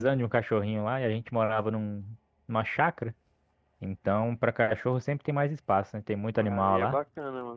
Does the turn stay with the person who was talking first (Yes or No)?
No